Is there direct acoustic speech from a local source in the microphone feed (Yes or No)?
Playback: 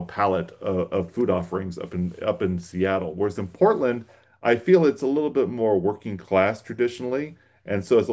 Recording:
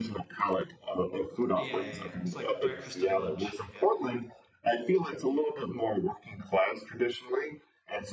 Yes